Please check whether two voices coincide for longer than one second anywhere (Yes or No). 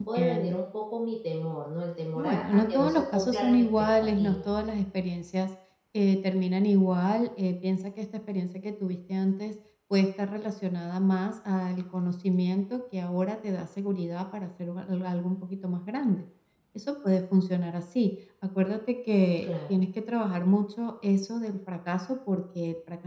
Yes